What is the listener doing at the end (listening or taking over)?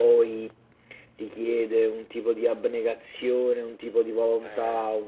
listening